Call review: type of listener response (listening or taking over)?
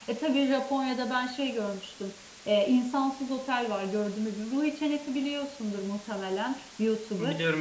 listening